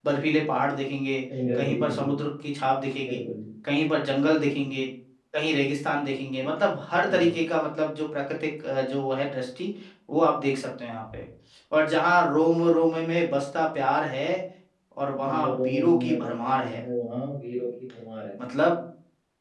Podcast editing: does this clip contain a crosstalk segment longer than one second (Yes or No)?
Yes